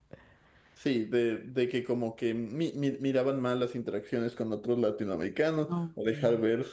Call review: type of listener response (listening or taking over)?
listening